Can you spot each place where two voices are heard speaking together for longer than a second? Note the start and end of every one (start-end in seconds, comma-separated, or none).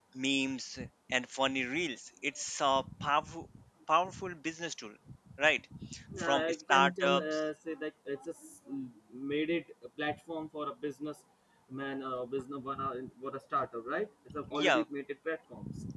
6.2-7.4